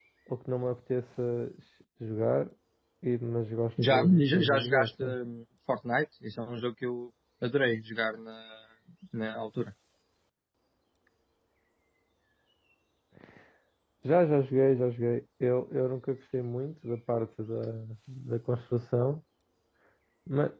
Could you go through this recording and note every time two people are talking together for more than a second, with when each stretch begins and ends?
3.9-5.2

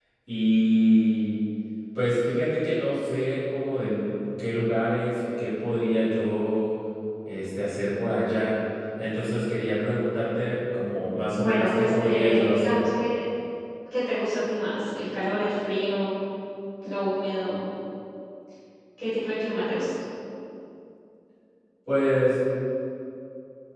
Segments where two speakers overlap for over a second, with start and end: 11.3-12.8

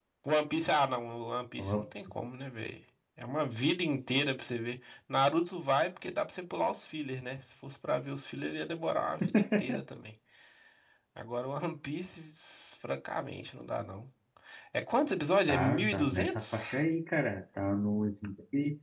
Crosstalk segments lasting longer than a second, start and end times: 15.5-16.8

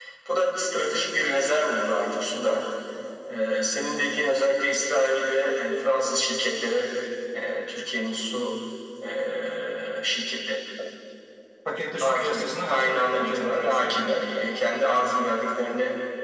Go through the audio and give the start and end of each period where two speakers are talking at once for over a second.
12.0-13.9

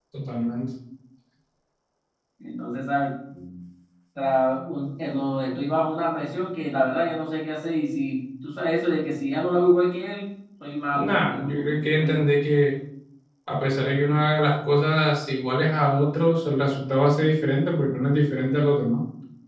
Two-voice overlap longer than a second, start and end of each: 10.9-12.3

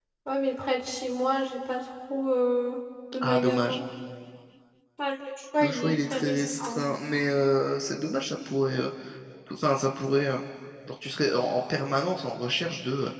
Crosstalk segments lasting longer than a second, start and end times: 5.6-6.8

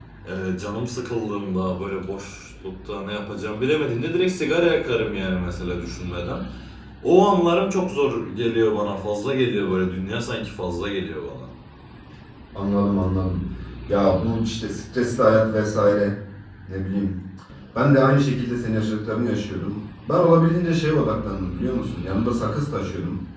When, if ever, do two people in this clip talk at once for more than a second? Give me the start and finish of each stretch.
none

